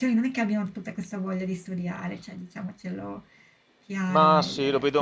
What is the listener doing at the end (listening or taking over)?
taking over